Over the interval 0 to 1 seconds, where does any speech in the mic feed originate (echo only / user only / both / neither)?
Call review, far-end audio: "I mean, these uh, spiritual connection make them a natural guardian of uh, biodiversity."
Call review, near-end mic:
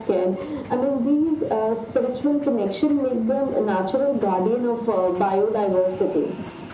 echo only